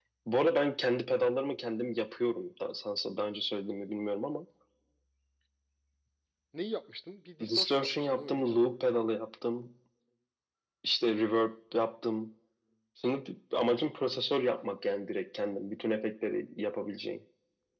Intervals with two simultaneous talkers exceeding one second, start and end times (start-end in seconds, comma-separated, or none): 7.5-8.7